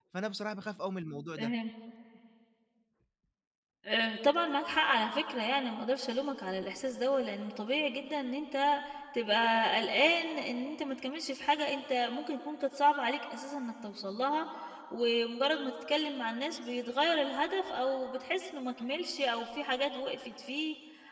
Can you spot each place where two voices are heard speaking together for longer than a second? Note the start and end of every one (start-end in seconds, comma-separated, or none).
none